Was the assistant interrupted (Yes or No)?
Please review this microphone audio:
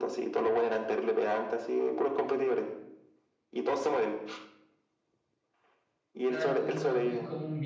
Yes